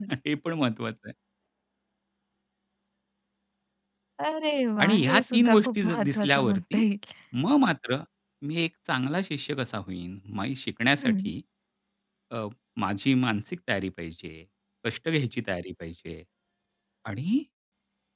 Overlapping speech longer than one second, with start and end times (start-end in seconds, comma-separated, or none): 4.8-6.8